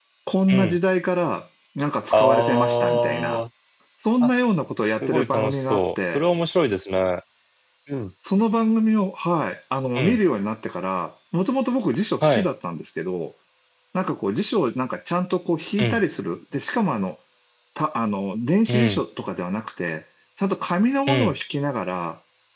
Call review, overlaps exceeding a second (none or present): present